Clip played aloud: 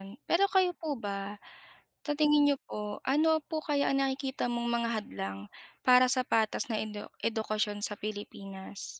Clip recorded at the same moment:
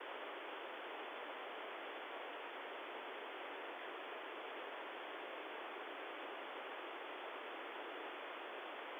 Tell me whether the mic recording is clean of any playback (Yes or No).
Yes